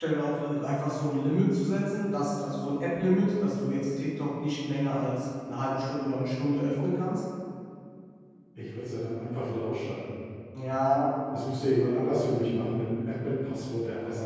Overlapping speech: No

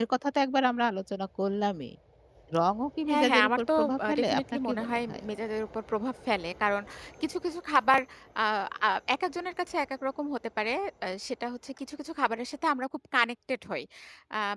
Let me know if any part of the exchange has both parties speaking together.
Yes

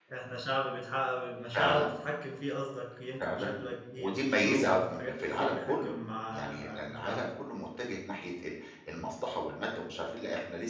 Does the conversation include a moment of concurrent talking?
Yes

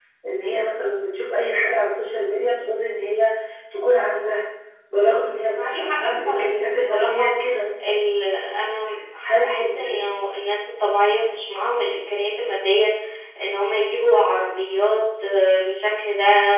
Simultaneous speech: Yes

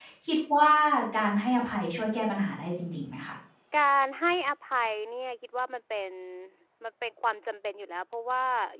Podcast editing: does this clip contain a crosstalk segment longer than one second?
No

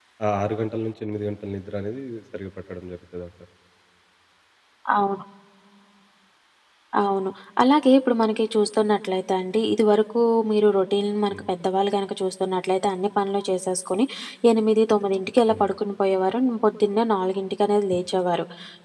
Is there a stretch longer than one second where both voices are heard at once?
No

